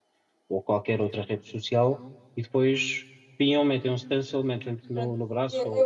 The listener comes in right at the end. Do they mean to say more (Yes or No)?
Yes